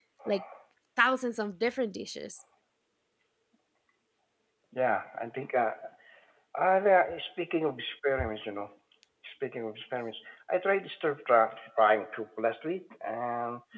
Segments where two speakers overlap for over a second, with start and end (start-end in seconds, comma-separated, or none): none